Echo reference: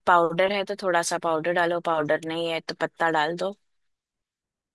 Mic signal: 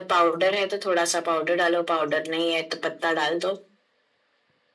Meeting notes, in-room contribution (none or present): none